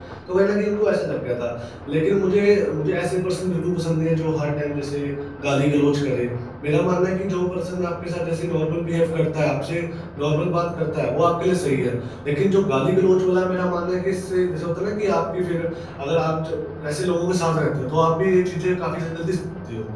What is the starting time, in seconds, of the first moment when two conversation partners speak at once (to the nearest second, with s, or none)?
none